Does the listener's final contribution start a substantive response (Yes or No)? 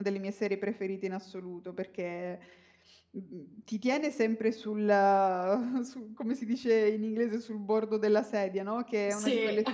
No